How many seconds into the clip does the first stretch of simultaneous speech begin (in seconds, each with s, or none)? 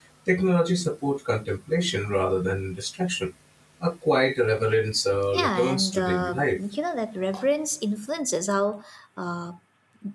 5.3 s